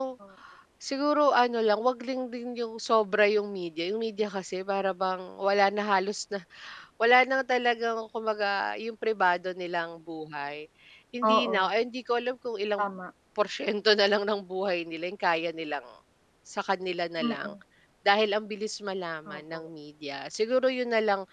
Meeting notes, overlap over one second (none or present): none